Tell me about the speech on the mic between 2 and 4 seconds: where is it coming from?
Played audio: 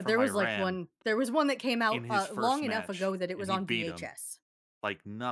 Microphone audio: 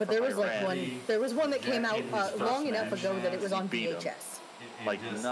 both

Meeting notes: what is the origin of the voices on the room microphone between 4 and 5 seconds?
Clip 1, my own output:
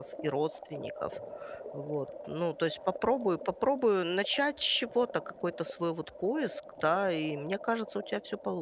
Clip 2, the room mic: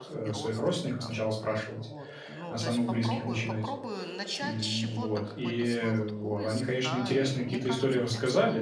both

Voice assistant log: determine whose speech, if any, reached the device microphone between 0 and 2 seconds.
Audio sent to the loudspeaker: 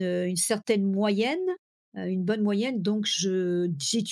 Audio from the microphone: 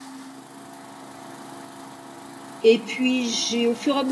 neither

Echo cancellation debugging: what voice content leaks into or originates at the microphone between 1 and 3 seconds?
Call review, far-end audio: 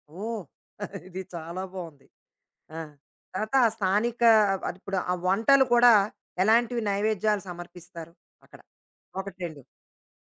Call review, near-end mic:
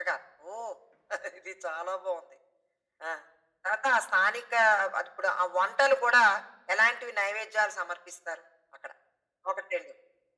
echo only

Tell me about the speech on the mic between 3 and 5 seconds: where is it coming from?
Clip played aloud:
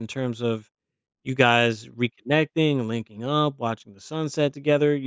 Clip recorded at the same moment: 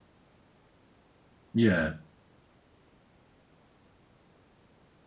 neither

